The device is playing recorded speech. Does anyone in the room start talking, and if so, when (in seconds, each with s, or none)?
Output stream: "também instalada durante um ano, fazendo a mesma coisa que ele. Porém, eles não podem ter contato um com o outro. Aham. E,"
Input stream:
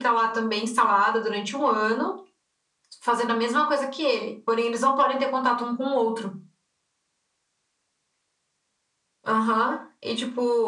none